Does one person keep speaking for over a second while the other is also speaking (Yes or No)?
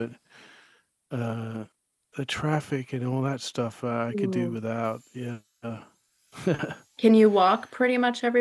No